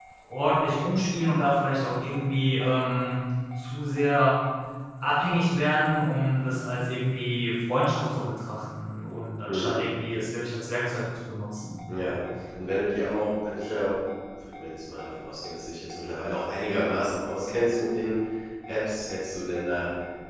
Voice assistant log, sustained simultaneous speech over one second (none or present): none